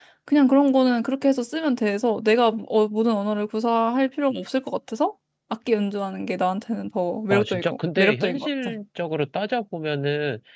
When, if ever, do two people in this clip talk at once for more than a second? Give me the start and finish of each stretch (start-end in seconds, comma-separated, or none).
7.3-8.7